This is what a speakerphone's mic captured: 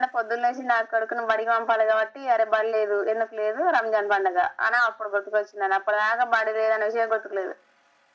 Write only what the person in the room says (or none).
none